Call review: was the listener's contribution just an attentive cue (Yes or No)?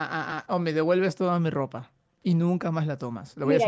No